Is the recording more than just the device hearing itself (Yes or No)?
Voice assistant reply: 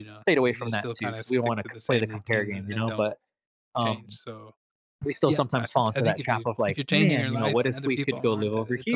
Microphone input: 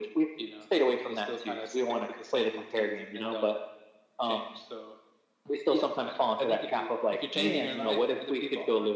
No